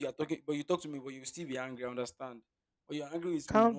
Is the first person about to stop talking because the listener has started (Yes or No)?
Yes